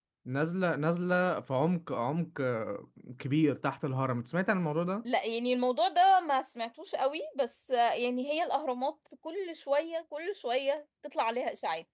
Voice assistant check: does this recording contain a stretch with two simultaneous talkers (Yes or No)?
No